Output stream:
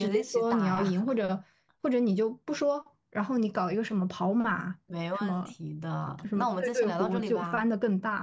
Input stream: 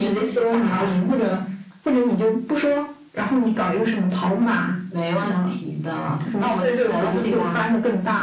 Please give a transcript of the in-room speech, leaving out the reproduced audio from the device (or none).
none